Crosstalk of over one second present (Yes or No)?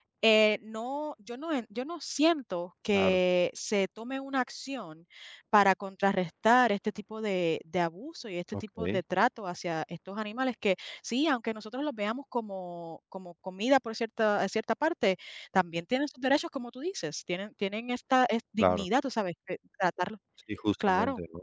No